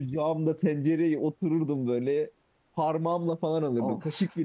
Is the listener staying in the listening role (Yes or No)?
Yes